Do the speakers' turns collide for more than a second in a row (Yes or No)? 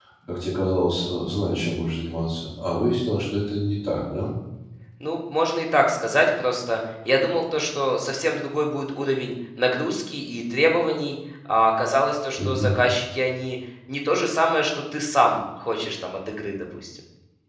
No